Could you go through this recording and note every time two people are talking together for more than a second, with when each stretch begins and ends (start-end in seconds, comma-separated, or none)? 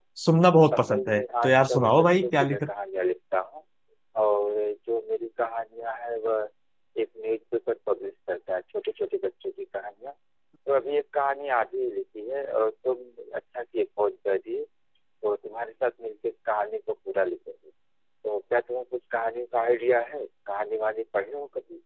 0.7-2.7